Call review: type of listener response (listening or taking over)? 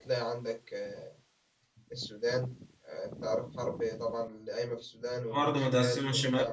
taking over